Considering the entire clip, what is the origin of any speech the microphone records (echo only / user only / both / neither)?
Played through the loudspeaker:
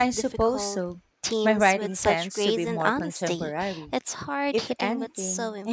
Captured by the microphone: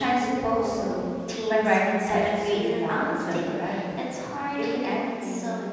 echo only